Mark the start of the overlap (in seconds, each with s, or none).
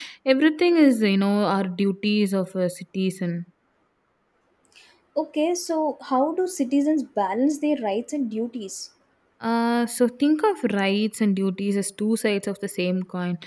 none